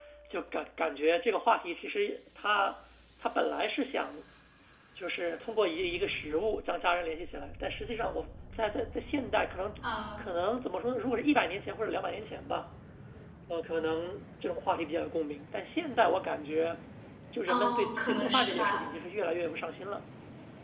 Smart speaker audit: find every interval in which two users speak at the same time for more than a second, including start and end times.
17.5-18.9

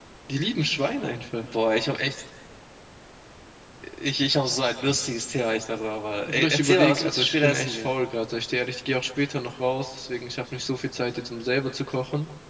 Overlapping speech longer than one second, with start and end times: 6.3-7.9

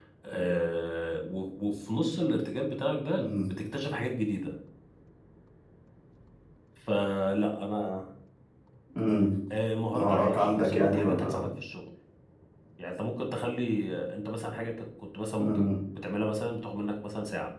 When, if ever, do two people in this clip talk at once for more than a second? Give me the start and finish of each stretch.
10.0-11.5

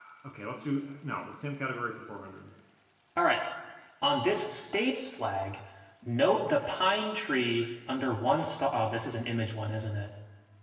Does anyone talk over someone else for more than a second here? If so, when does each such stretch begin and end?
none

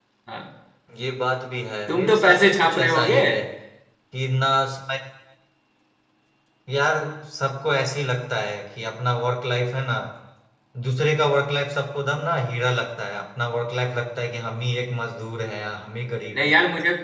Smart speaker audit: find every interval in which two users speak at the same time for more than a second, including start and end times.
1.9-3.2

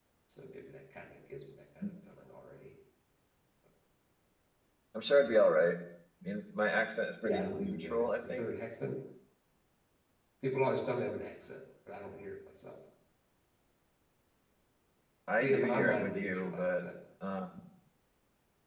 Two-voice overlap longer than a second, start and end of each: 7.2-8.5, 15.4-16.8

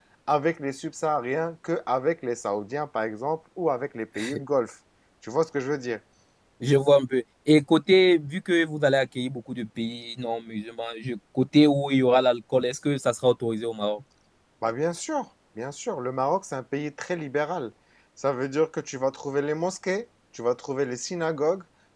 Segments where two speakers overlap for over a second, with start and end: none

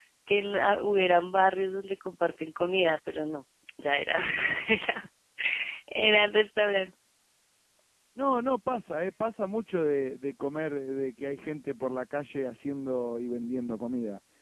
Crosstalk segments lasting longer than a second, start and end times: none

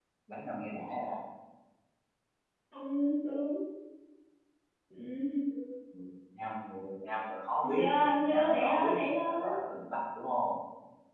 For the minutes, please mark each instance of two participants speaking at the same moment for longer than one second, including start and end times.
7.6-9.5

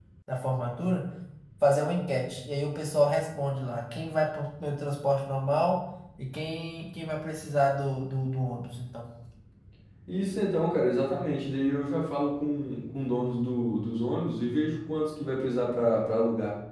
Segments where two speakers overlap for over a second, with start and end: none

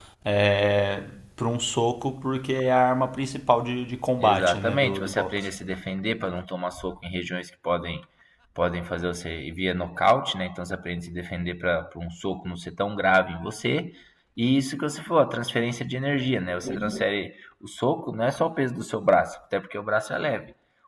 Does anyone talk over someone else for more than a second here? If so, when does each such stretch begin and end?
4.2-5.5

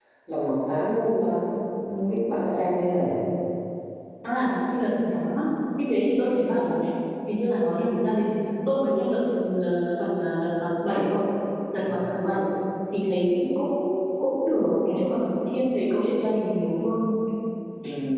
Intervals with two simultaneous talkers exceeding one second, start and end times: none

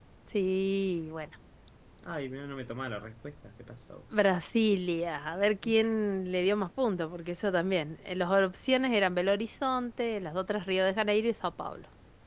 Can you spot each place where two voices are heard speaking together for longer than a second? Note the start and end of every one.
none

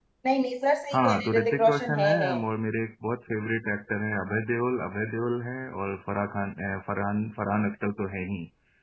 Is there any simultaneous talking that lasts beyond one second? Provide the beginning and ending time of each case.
0.9-2.3

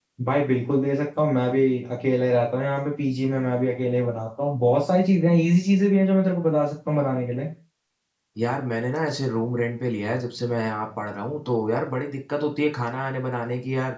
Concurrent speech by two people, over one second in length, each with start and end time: none

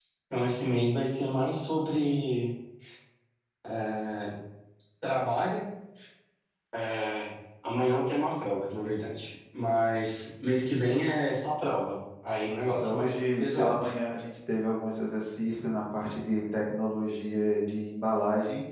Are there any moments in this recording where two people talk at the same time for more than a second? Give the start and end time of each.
12.5-13.8

